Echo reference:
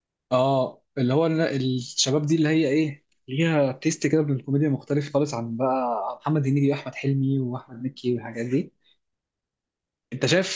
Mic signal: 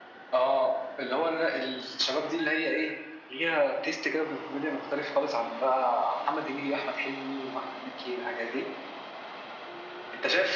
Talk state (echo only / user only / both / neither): echo only